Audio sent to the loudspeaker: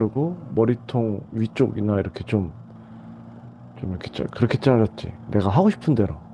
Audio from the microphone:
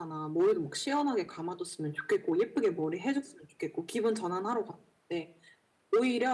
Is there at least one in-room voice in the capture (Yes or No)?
Yes